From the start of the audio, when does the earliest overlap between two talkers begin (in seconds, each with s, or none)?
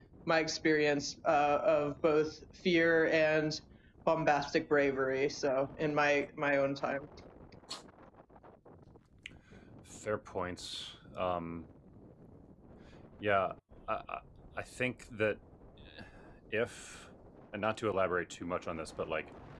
none